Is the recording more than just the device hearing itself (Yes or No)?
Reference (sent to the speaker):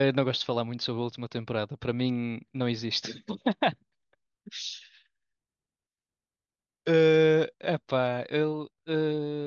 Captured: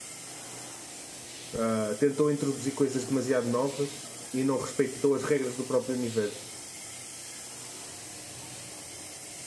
Yes